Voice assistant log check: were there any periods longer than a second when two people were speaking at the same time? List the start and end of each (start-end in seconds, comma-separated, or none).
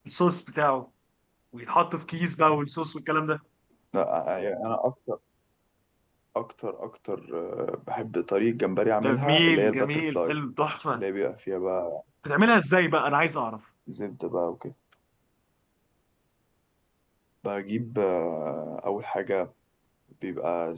9.0-10.4